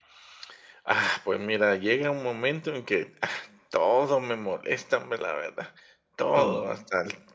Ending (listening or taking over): listening